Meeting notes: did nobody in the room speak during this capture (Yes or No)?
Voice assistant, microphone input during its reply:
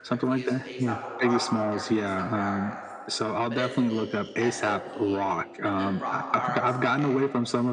No